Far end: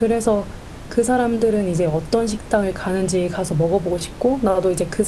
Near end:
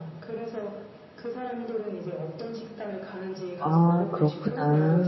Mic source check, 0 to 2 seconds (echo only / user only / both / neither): echo only